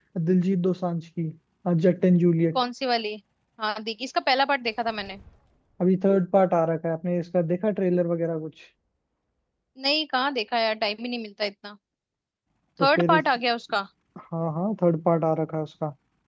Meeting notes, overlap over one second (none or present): none